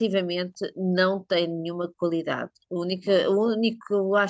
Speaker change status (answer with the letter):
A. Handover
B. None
B